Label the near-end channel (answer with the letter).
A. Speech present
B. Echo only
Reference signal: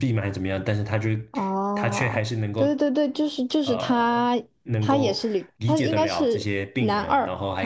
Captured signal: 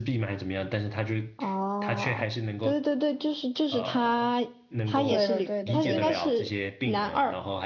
A